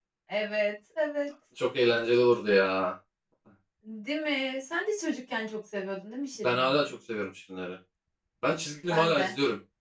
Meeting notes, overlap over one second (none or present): none